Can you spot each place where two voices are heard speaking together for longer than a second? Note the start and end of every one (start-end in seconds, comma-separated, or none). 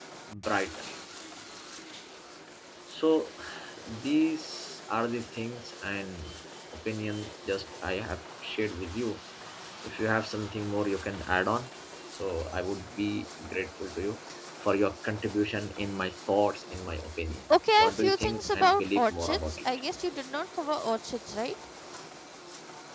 17.8-19.6